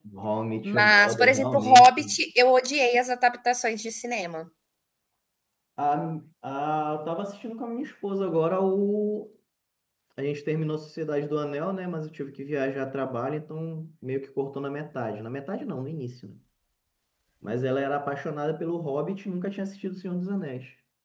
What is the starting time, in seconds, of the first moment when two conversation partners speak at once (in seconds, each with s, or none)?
0.6 s